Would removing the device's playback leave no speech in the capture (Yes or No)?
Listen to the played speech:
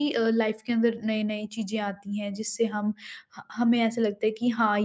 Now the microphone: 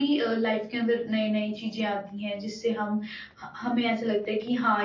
Yes